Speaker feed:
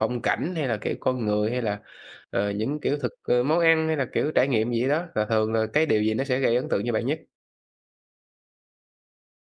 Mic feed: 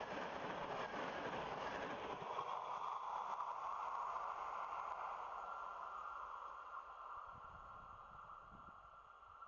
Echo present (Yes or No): No